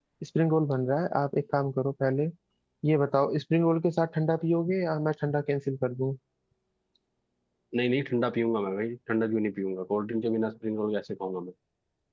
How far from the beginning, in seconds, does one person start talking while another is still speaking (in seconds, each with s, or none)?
none